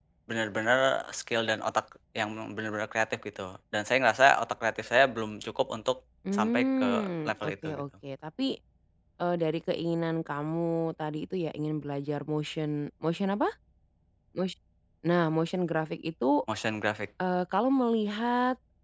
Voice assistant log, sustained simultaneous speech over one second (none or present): present